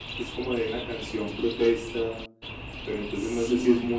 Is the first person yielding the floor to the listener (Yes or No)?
No